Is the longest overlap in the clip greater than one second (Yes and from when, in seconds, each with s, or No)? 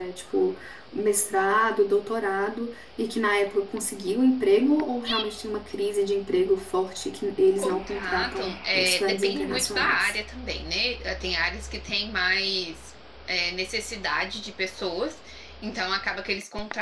Yes, from 7.6 s